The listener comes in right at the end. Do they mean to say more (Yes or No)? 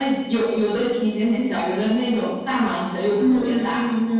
Yes